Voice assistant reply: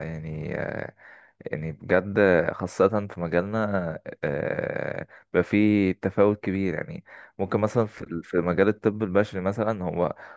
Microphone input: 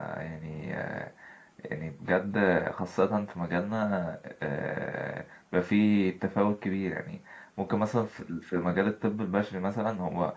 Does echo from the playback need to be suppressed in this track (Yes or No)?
Yes